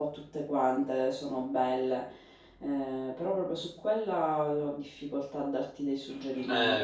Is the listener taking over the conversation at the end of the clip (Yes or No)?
Yes